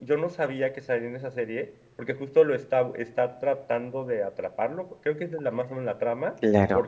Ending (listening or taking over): listening